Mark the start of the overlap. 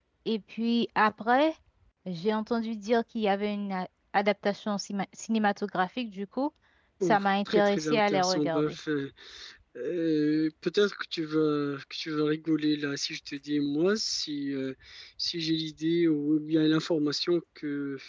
7.0 s

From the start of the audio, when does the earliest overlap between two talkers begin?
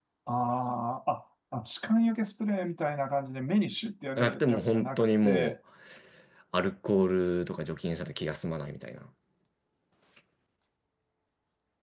4.2 s

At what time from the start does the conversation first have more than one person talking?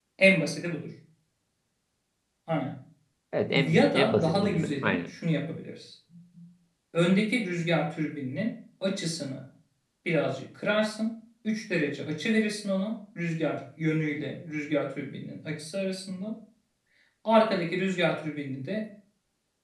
3.5 s

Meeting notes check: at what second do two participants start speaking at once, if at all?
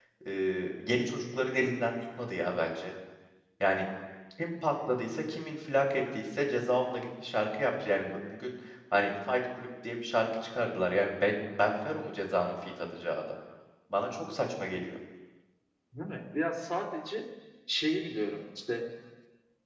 none

